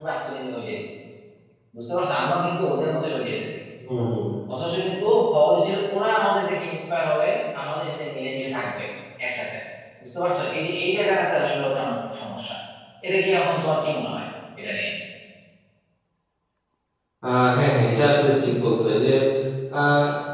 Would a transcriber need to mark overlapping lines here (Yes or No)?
No